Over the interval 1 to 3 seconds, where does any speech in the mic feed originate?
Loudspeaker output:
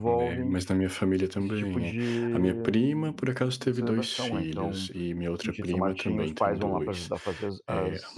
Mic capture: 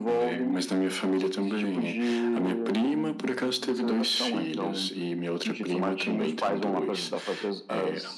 echo only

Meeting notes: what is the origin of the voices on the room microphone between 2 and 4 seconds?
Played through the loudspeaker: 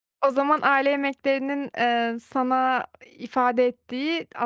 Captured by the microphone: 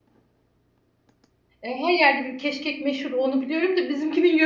user only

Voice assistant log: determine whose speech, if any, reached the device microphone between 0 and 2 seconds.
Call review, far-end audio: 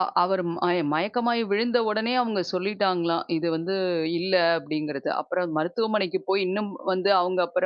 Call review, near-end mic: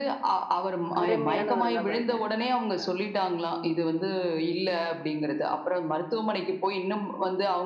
both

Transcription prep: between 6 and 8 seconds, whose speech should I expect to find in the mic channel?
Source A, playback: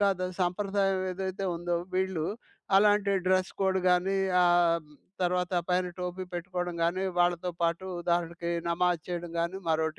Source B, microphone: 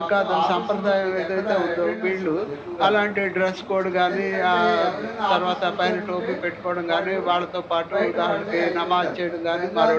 both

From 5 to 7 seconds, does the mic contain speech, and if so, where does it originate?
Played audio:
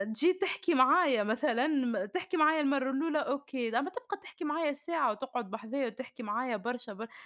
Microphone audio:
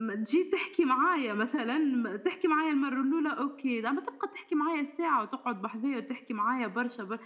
echo only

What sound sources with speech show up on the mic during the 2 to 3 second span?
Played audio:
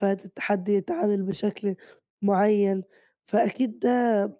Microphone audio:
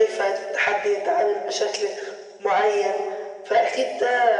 echo only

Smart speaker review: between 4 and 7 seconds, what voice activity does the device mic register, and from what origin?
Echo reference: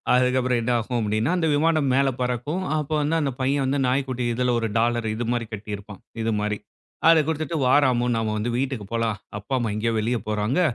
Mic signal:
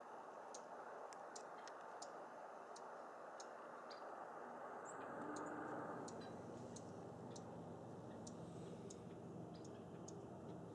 neither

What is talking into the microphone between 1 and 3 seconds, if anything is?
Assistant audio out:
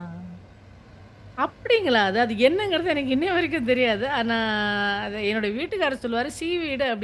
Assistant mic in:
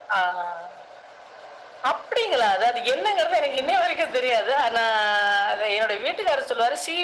echo only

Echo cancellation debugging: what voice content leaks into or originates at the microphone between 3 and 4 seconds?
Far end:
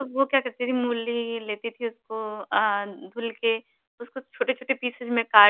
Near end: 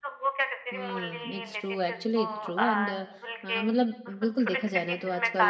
both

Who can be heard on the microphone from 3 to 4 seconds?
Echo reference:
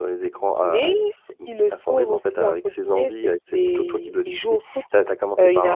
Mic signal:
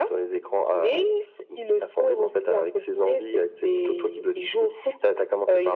echo only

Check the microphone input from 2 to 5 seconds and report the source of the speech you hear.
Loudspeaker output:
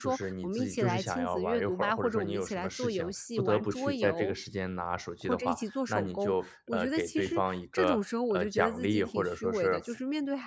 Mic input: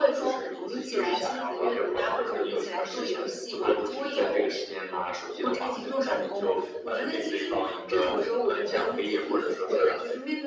echo only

